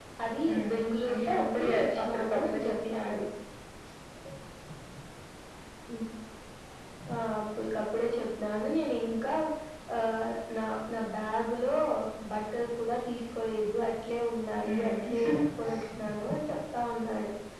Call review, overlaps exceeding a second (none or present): present